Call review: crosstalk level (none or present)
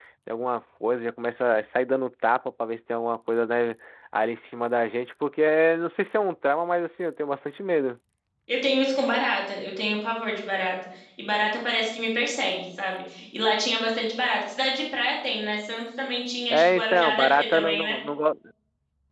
present